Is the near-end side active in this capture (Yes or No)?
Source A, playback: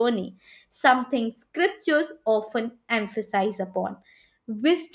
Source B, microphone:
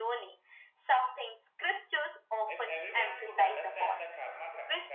Yes